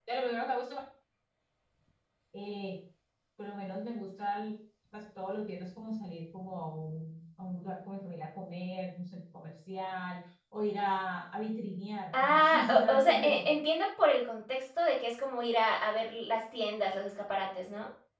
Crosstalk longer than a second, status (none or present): present